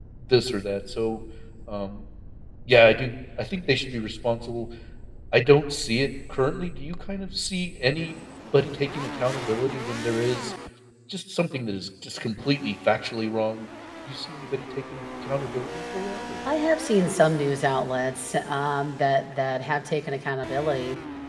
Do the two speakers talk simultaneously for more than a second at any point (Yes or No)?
No